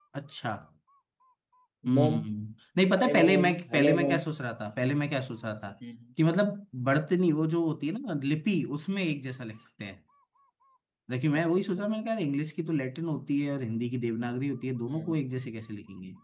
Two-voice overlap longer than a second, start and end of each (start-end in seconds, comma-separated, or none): 3.0-4.2